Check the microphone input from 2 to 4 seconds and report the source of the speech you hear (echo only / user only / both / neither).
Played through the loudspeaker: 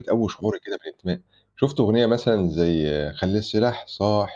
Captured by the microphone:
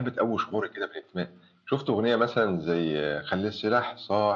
echo only